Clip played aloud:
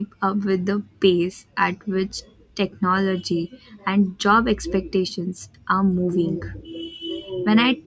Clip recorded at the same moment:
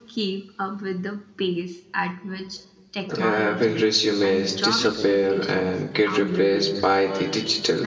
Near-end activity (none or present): present